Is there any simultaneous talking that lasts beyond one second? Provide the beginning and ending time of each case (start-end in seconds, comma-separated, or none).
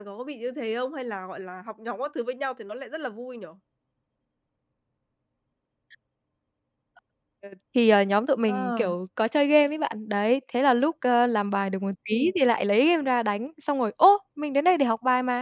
none